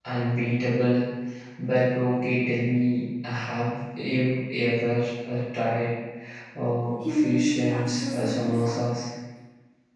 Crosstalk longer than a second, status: present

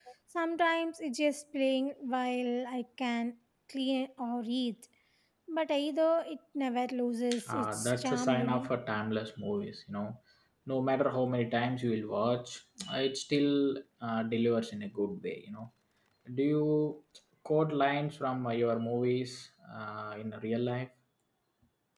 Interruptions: present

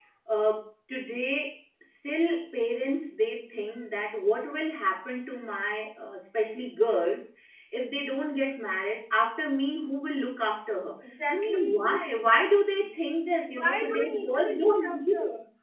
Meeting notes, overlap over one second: present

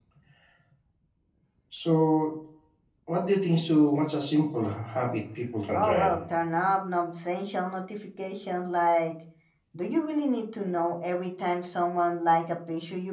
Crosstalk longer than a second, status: none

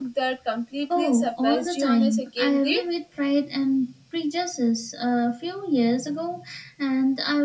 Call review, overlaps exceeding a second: present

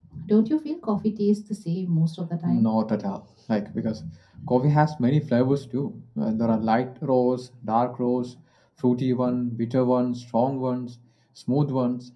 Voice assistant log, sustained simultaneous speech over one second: none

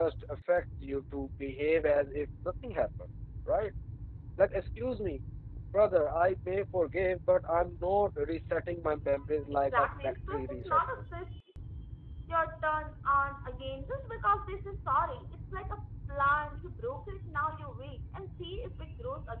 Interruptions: present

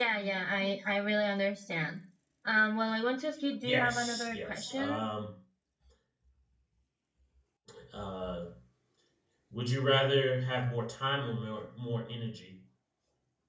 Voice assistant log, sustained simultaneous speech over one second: present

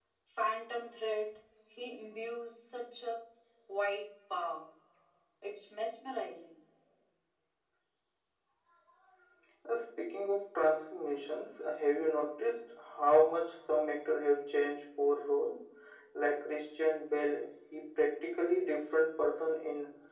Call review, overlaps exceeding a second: none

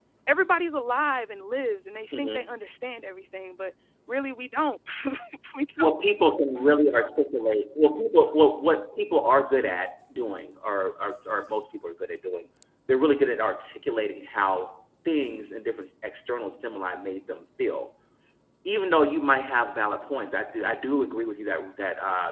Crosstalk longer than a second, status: none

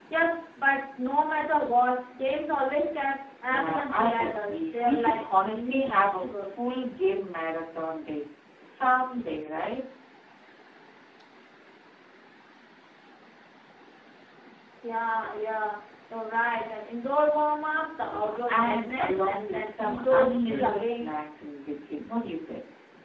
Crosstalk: present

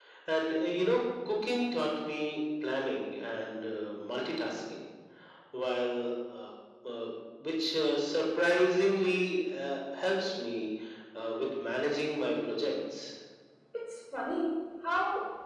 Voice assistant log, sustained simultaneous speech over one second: none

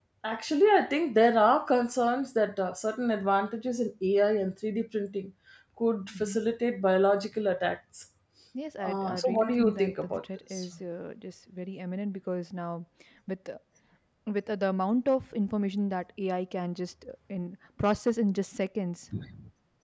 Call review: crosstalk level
present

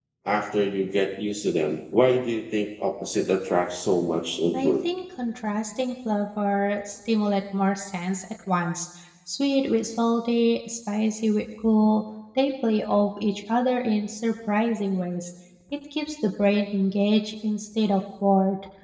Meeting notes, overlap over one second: none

